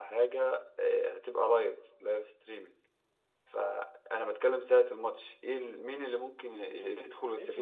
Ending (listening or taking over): taking over